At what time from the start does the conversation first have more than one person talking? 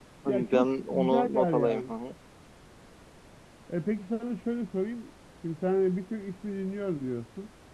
1 s

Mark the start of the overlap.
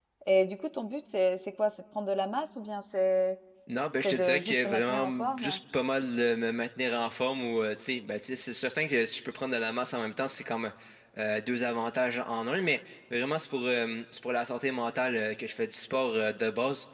4 s

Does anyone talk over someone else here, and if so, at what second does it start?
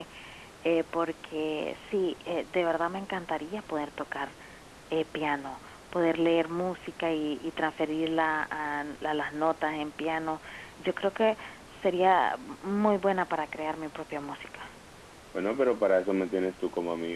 none

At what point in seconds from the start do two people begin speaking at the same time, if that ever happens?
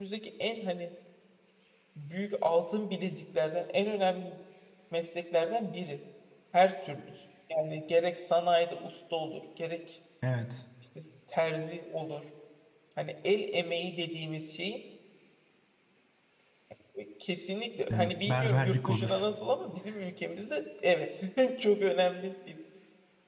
18 s

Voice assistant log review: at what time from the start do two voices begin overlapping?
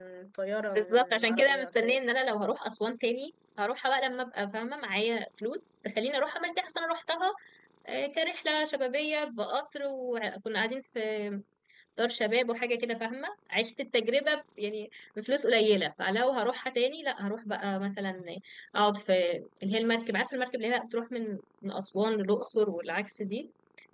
1 s

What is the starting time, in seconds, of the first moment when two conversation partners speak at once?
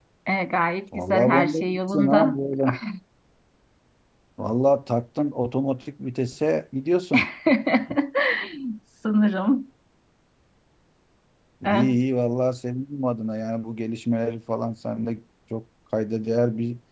1 s

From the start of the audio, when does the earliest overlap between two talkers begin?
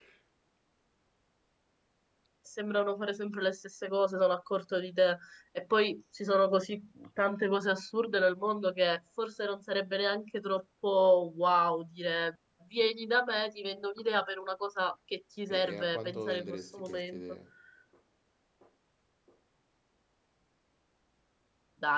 16 s

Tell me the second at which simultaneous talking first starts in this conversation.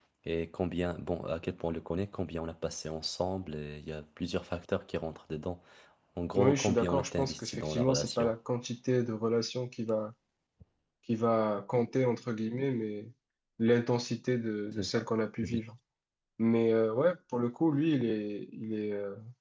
6 s

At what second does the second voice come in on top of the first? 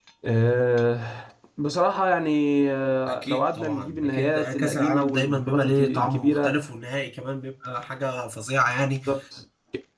3 s

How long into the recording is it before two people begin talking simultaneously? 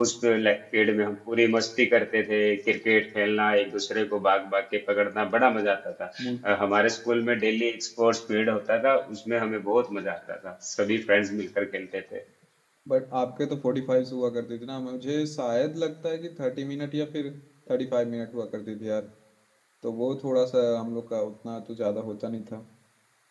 none

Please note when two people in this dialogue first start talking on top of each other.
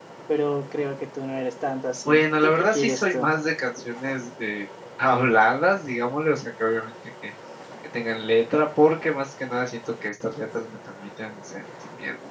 2 s

